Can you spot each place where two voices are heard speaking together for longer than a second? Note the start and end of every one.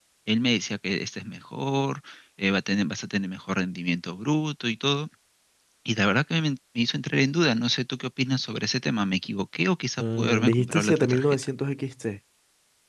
10.0-11.4

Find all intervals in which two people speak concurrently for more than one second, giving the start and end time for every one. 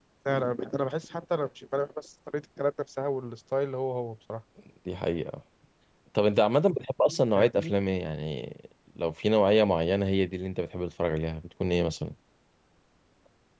none

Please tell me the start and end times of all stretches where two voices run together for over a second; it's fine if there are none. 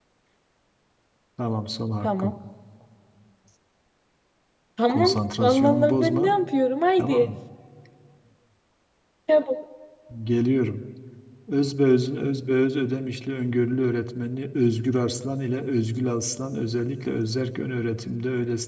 4.9-6.3

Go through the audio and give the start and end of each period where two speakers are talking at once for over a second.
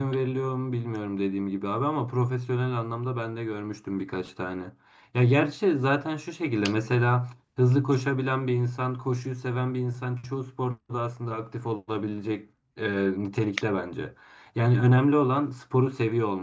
none

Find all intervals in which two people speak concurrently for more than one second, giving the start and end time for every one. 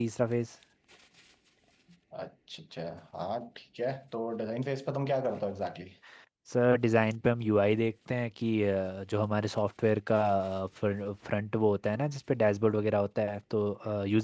none

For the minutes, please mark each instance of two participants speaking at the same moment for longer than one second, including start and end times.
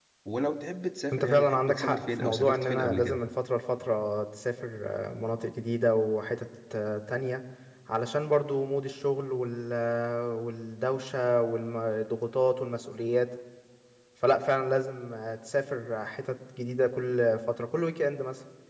1.1-3.2

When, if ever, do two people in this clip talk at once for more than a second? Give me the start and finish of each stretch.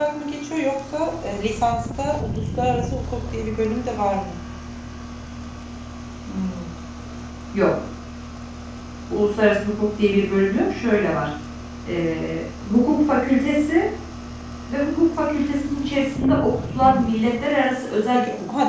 none

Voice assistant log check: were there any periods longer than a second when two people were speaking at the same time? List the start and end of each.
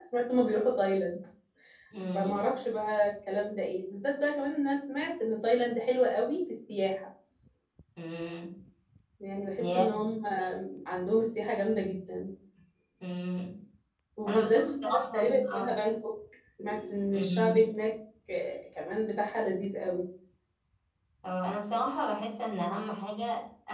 14.3-15.8

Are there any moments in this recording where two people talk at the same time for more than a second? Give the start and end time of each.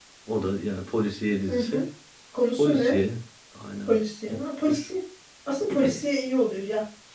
none

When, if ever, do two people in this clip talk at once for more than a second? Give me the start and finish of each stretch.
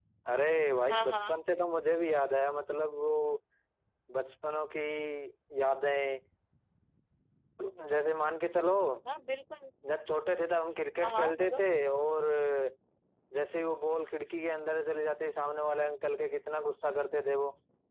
none

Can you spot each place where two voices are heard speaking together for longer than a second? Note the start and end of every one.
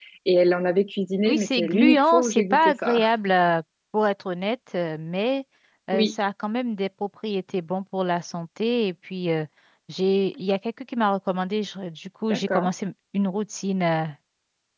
1.2-3.0

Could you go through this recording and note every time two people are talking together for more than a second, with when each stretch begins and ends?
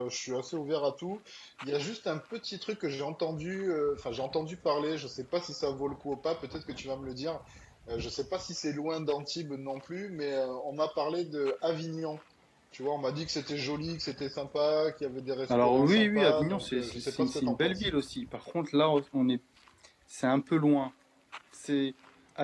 15.5-17.9

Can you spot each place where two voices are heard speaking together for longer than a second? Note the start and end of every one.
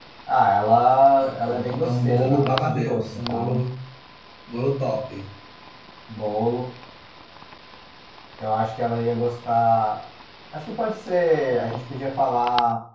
1.5-3.6

